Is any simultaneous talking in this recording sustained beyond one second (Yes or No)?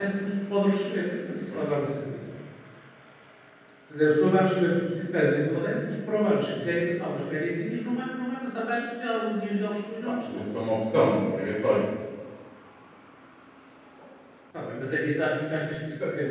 No